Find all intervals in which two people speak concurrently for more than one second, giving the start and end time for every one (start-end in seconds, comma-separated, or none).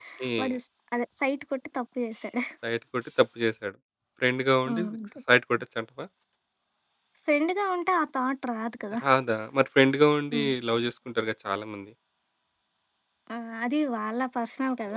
none